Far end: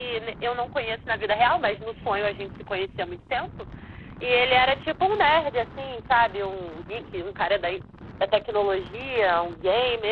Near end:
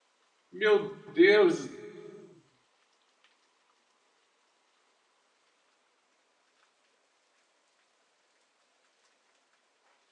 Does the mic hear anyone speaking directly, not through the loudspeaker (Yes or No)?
Yes